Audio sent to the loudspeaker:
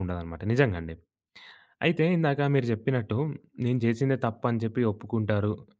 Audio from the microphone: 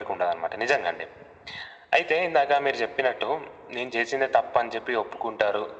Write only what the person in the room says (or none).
none